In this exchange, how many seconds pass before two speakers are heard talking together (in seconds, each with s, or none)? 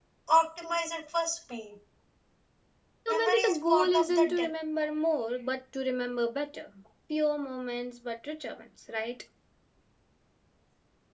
3.1 s